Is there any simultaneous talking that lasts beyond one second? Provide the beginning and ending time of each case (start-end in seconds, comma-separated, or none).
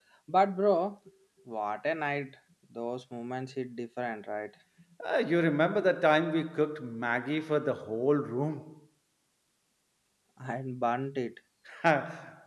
none